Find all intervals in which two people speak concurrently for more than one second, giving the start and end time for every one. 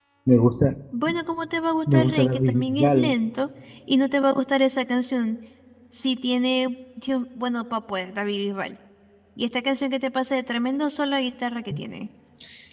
1.9-3.1

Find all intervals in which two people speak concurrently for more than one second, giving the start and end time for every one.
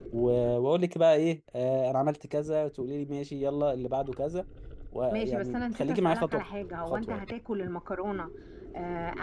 5.1-6.4

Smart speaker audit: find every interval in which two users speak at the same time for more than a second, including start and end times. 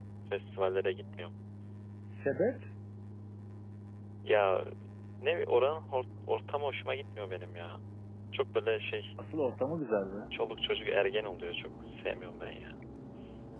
none

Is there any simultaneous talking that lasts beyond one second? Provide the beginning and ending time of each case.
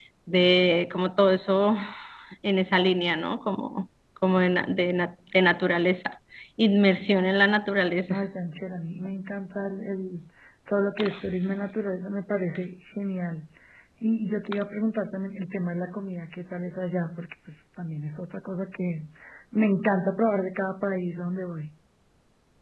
none

